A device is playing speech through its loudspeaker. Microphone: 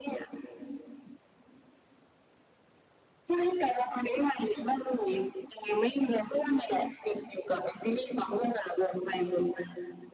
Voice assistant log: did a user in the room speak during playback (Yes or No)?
No